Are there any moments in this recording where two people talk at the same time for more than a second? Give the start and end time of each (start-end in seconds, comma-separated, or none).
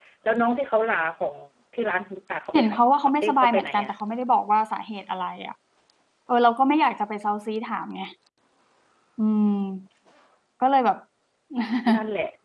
2.5-3.9